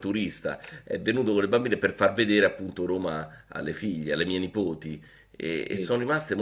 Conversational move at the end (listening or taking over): listening